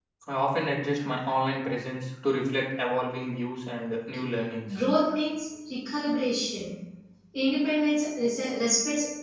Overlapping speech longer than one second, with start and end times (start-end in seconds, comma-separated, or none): none